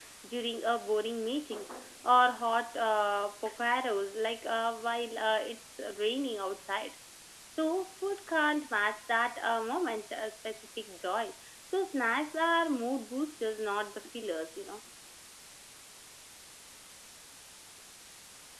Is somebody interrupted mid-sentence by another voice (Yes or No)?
No